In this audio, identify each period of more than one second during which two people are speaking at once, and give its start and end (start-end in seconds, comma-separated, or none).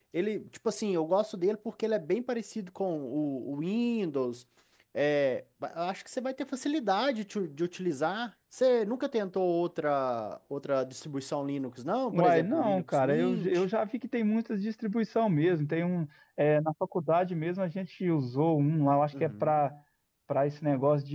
12.1-13.6